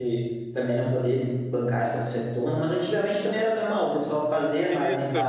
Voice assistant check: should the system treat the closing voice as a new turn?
Yes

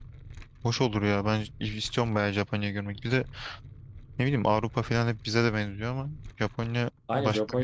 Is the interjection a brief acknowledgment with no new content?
No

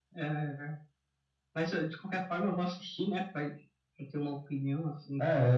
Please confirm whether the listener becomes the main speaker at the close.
Yes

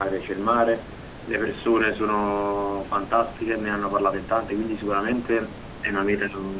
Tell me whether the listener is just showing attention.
Yes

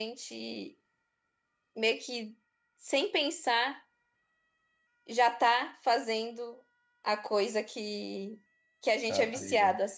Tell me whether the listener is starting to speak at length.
No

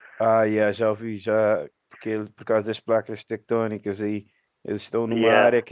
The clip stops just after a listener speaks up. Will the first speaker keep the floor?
Yes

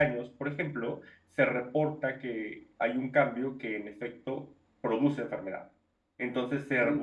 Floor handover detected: Yes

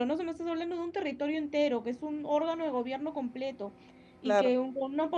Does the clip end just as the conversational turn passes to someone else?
No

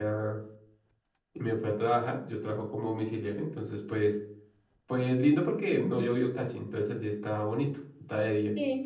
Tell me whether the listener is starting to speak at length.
No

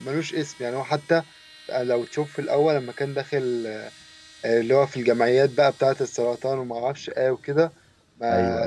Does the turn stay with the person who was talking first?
Yes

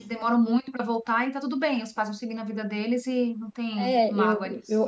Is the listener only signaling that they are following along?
No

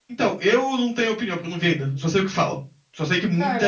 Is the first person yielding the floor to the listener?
Yes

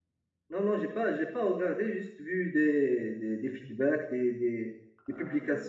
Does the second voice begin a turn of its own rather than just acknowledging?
No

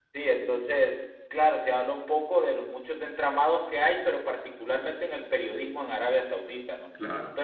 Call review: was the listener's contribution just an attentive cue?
Yes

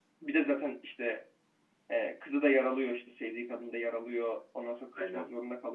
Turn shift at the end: No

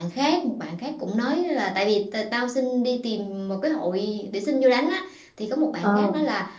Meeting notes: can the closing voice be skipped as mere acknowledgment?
Yes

